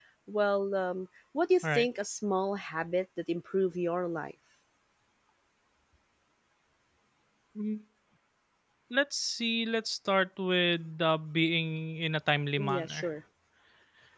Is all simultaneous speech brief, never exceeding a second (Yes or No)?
Yes